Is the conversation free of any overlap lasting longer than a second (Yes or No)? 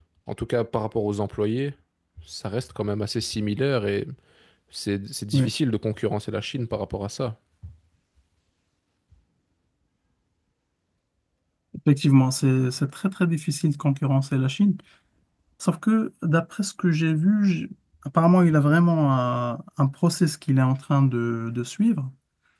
Yes